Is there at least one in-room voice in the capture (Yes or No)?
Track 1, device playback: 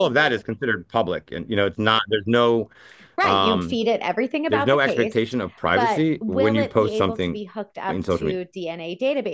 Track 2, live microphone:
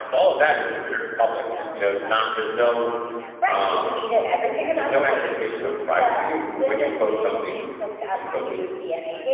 Yes